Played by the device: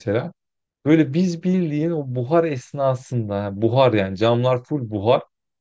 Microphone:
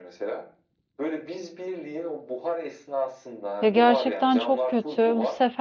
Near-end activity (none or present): present